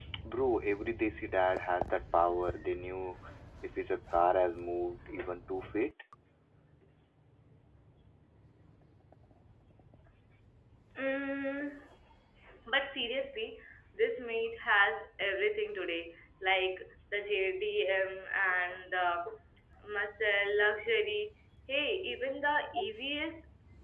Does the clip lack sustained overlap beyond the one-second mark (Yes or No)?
Yes